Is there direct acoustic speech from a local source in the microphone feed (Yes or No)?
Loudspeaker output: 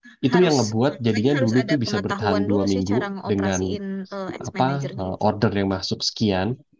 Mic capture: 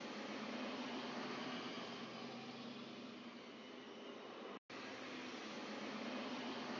No